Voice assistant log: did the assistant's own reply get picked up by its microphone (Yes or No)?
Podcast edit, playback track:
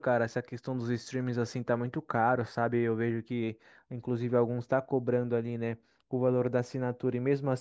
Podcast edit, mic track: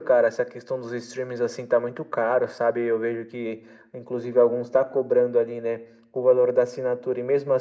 Yes